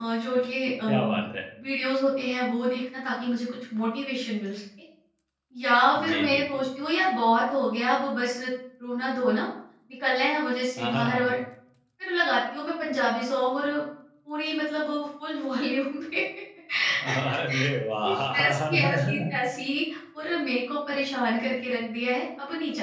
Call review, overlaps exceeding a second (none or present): present